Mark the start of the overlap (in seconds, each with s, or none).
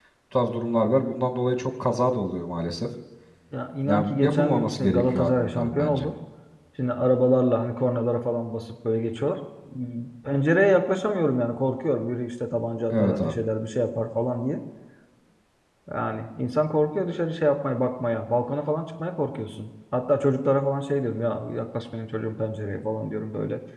3.9 s